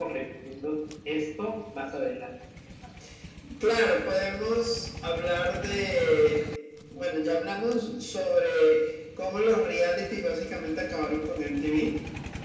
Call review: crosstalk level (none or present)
none